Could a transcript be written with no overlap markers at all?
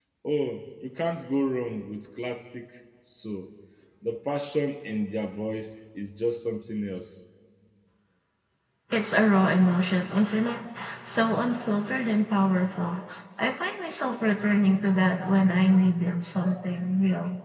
Yes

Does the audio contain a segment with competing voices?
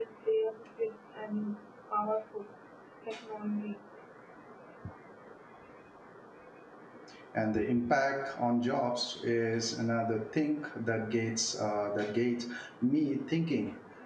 No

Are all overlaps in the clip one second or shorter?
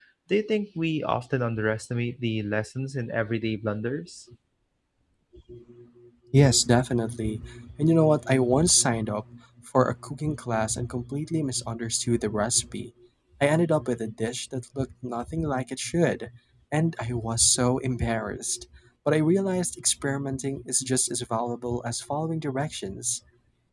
Yes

